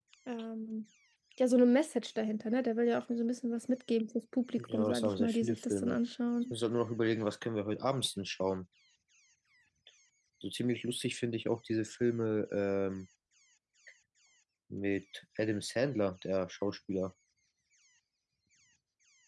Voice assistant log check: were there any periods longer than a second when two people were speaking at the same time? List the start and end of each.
4.6-6.0

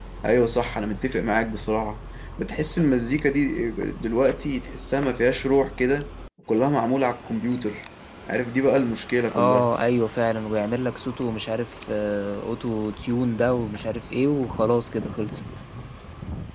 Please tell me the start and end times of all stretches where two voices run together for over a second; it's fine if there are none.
none

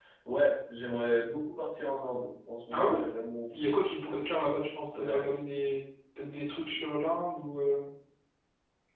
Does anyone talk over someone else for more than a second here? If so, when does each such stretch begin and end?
none

